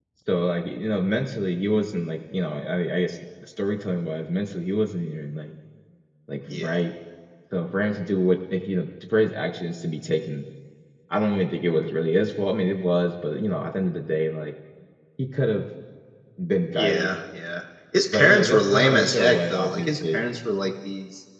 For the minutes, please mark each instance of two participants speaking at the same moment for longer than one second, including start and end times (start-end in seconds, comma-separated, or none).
18.1-20.2